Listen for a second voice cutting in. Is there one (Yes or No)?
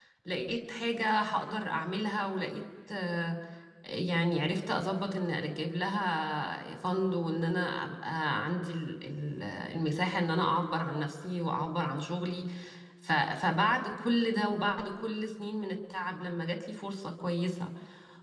No